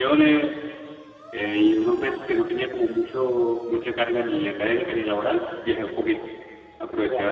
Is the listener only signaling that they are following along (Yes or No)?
No